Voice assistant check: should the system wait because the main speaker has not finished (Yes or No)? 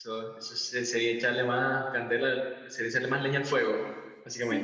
No